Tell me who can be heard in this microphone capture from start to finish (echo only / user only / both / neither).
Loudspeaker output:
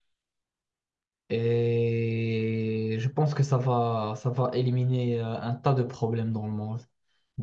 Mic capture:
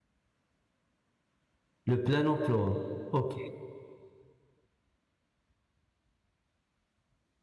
user only